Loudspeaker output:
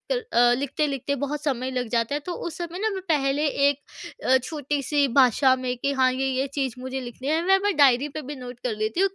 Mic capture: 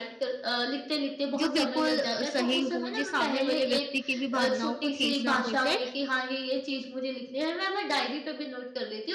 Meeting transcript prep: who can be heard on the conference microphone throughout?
both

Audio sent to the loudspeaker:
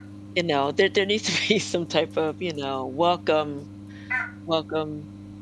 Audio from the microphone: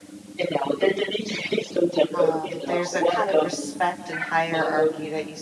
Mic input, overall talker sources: both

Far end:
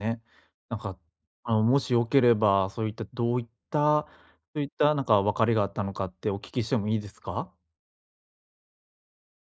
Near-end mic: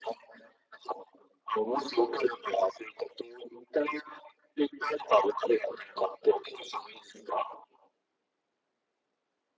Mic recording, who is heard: echo only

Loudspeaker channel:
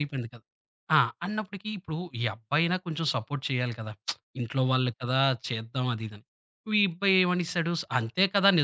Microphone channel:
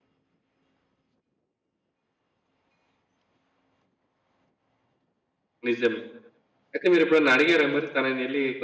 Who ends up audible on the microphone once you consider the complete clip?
user only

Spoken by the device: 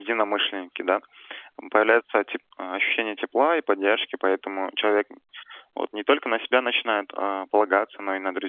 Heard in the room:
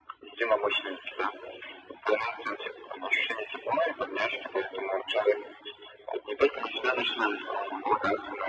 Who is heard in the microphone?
echo only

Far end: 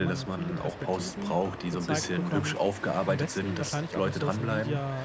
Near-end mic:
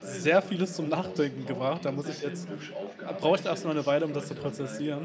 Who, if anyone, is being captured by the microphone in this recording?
both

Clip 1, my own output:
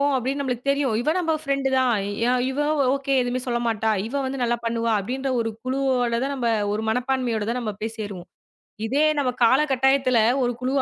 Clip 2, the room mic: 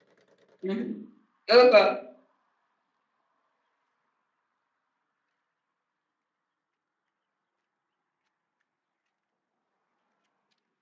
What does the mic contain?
user only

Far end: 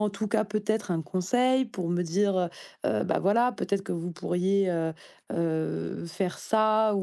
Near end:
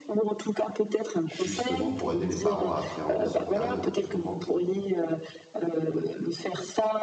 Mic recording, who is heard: both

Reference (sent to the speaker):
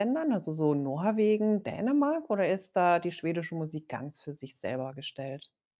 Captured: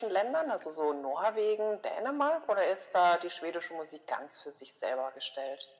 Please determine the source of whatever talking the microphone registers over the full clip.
echo only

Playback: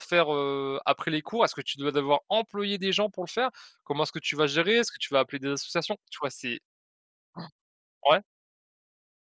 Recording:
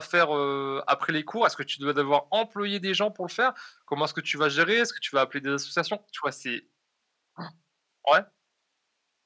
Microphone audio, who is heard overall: echo only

